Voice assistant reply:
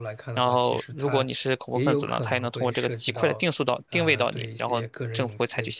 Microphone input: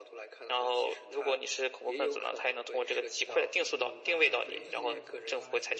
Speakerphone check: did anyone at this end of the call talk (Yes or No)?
Yes